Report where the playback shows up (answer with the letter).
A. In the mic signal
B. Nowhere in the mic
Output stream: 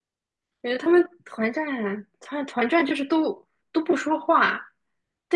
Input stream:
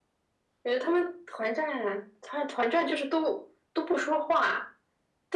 A